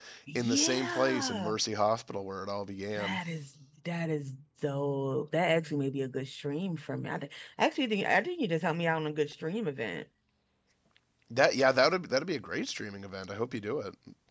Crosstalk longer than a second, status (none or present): present